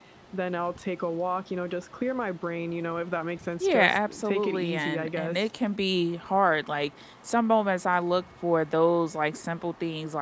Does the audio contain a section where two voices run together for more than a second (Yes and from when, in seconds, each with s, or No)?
Yes, from 3.6 s